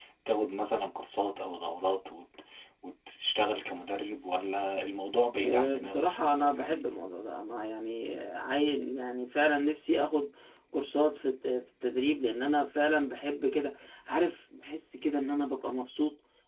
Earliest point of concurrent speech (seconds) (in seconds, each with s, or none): 5.3 s